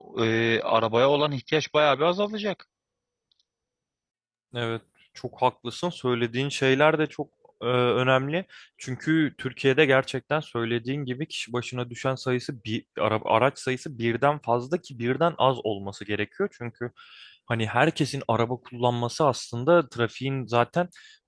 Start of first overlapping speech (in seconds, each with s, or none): none